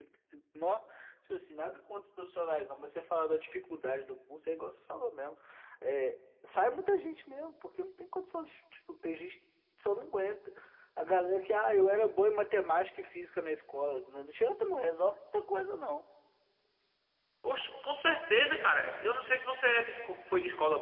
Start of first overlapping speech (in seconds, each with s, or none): none